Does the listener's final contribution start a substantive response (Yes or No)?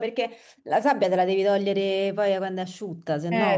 Yes